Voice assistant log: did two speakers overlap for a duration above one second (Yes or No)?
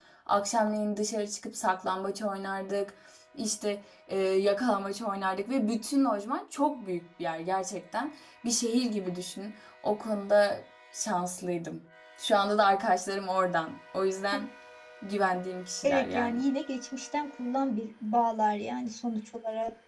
No